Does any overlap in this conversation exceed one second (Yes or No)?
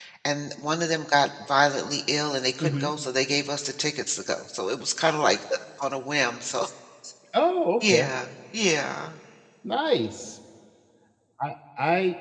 No